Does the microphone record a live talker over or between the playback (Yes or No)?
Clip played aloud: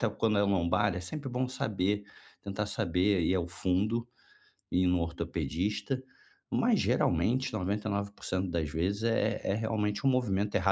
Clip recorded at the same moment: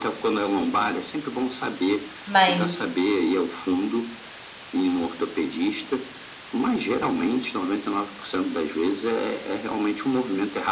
Yes